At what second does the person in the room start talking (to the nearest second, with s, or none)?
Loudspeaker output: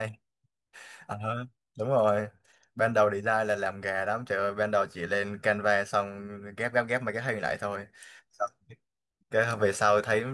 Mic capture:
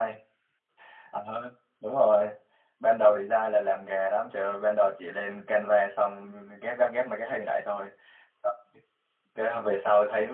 none